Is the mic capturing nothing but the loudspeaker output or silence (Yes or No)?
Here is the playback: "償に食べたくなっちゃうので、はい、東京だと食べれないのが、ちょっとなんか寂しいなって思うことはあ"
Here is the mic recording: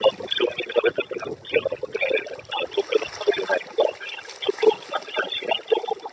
Yes